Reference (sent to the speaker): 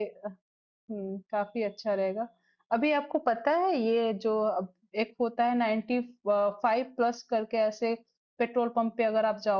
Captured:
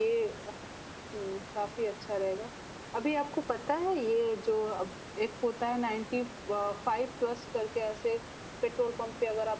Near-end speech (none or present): none